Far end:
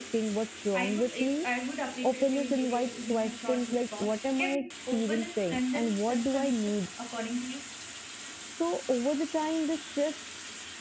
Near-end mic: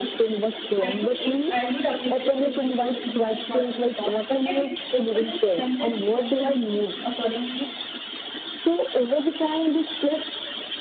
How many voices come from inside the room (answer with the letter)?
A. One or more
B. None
B